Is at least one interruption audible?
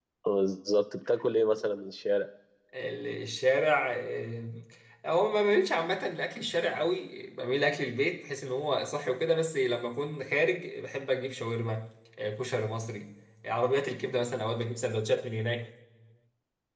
No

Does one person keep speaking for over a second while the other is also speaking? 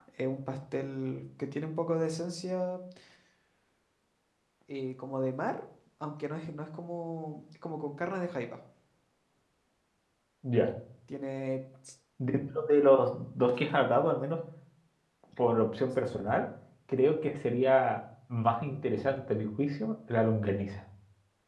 No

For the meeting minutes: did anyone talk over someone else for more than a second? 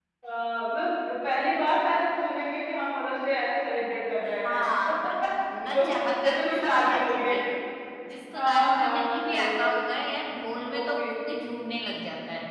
Yes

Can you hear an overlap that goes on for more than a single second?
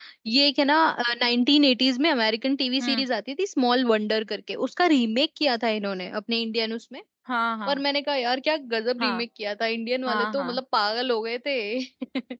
No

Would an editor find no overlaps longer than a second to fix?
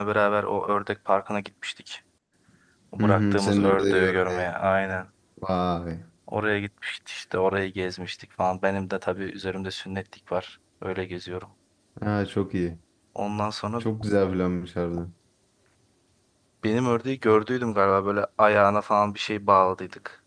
No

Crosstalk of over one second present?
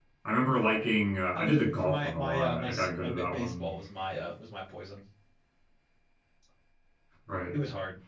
Yes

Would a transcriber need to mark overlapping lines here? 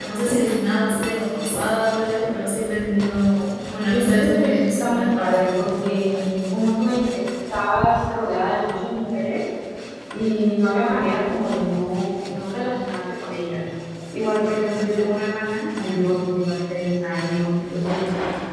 Yes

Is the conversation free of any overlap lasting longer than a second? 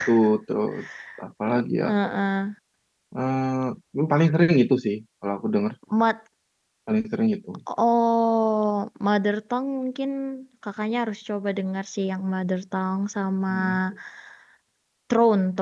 Yes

